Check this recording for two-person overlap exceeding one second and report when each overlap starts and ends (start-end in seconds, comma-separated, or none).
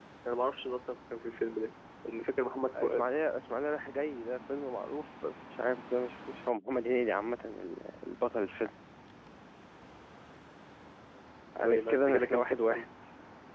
11.6-12.8